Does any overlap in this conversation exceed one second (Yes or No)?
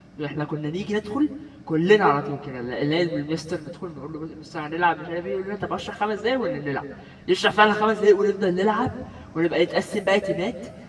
No